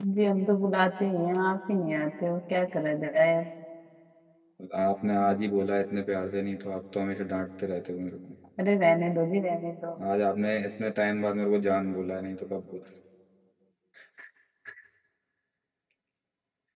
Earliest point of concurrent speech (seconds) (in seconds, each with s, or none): none